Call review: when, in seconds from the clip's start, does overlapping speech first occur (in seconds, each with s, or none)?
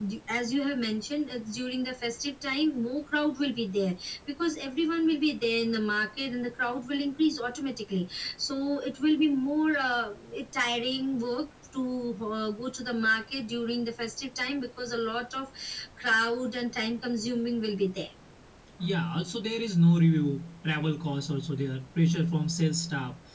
none